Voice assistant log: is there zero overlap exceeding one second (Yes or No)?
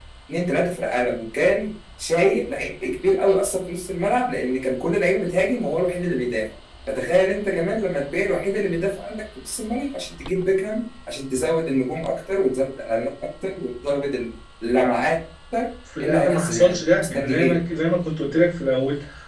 No